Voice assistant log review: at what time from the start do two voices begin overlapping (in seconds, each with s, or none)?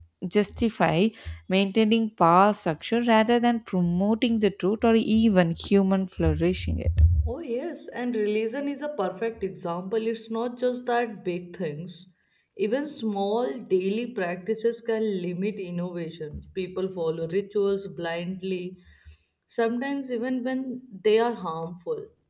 none